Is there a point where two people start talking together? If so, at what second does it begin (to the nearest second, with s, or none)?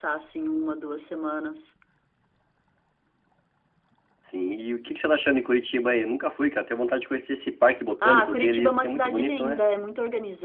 8 s